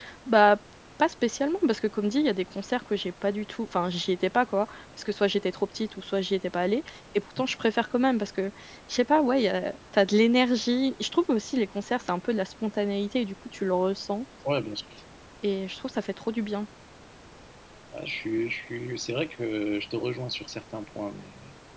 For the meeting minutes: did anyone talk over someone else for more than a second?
No

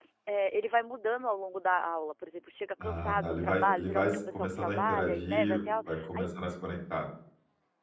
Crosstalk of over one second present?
Yes, from 2.8 s

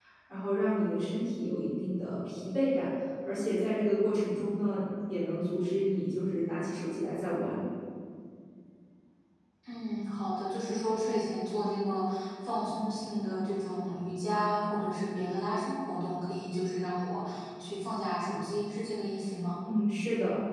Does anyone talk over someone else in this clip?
No

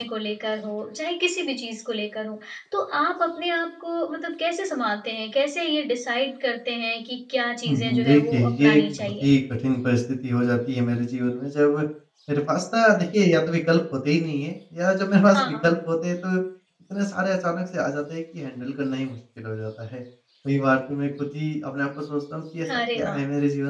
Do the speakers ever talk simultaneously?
Yes, from 7.7 s

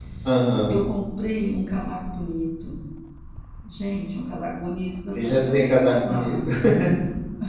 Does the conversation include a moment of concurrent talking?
Yes, from 5.2 s

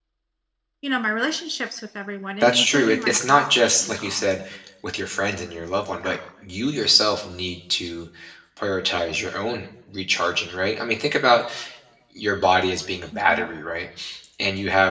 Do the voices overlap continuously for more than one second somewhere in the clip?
Yes, from 2.4 s

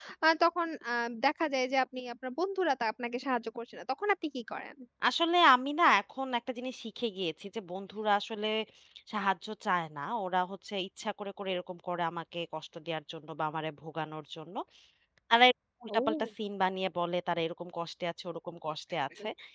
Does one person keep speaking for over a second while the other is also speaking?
No

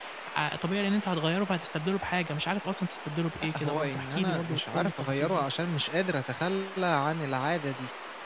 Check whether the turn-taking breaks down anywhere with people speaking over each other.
Yes, from 3.4 s

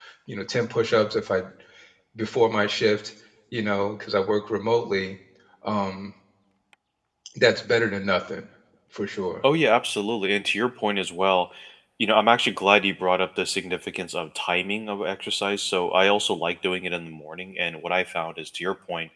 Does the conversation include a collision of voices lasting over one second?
No

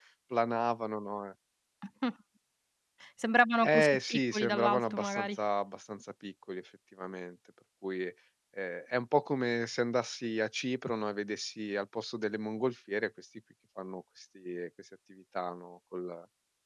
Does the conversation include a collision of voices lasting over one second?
Yes, from 3.6 s

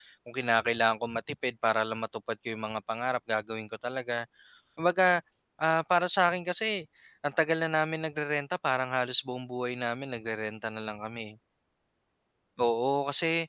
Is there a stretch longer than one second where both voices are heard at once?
No

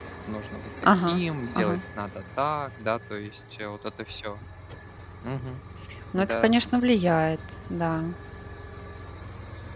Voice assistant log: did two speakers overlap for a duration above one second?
No

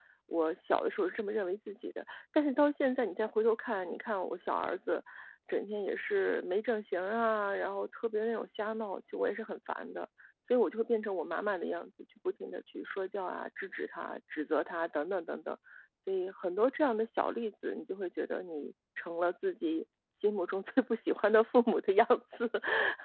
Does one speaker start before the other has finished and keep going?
No

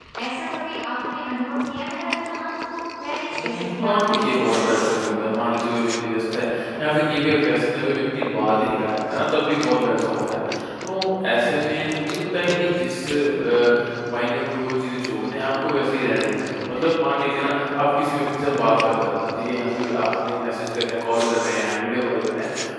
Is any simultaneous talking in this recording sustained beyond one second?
Yes, from 3.4 s

